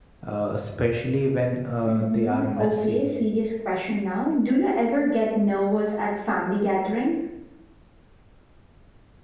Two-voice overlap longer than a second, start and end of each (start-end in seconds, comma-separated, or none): 1.8-3.1